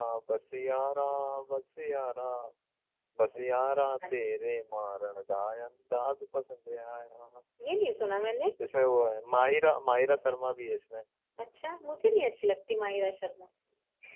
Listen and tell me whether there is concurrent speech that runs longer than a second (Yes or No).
No